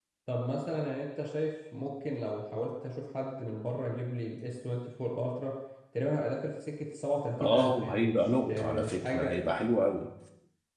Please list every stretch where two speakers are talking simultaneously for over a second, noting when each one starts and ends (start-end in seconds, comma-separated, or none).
7.4-9.3